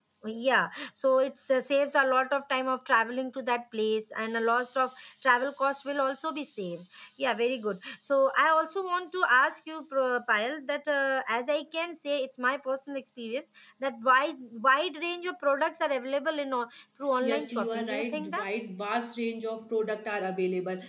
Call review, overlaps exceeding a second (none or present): present